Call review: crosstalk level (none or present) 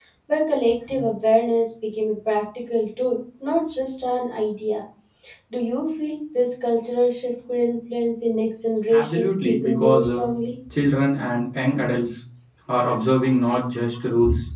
present